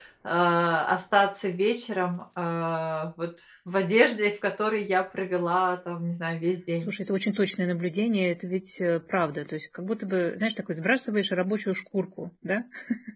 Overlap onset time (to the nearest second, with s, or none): none